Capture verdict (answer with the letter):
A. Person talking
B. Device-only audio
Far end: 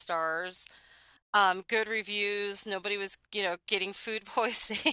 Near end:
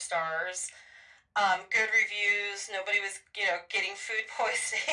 B